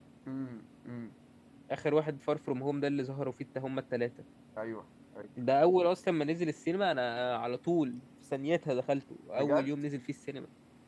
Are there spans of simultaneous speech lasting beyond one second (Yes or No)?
No